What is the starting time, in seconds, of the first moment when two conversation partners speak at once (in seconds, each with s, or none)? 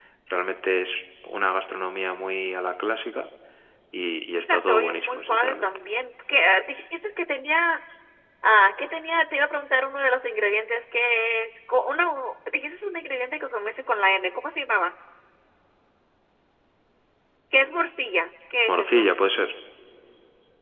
4.5 s